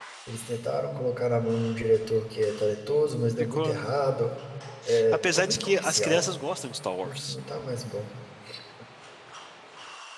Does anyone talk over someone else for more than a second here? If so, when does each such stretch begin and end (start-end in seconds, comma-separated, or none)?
5.1-6.4